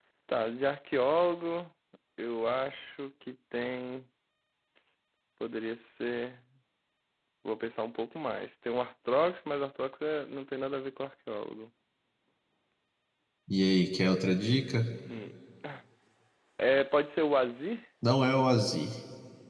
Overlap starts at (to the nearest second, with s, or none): none